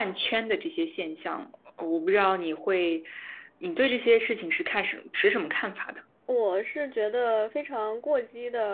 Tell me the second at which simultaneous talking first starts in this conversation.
none

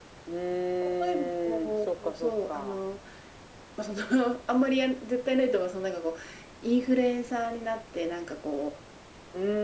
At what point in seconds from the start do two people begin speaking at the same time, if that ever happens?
1.0 s

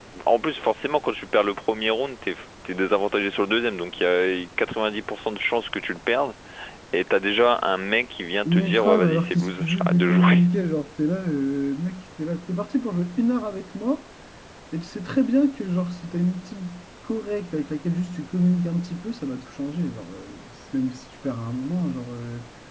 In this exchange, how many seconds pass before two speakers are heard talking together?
8.4 s

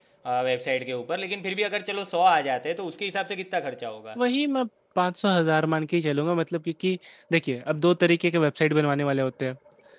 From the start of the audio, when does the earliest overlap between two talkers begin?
none

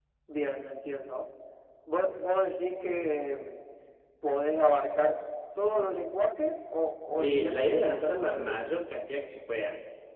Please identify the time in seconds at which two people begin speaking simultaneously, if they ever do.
7.2 s

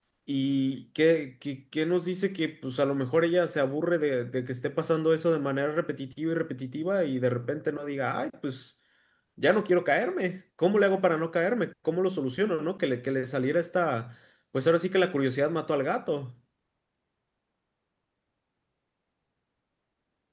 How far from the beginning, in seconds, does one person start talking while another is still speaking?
none

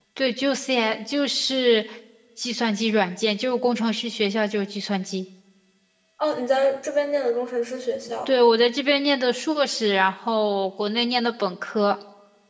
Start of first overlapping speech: none

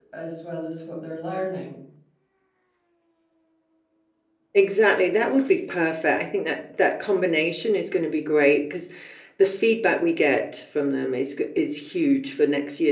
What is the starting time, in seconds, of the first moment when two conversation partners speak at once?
none

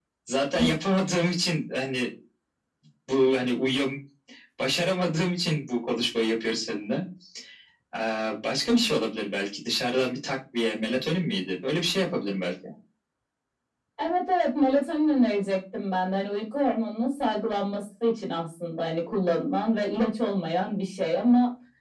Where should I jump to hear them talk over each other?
none

